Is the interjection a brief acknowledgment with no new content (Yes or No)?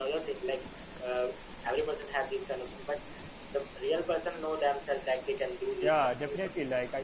No